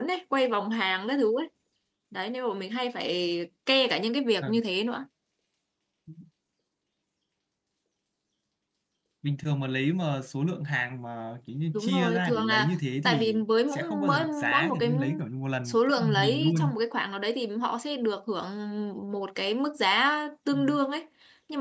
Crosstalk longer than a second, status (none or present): present